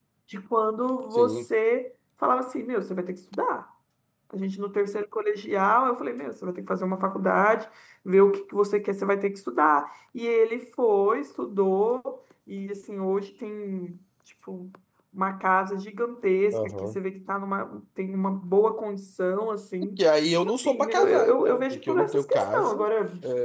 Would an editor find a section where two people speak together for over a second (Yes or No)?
Yes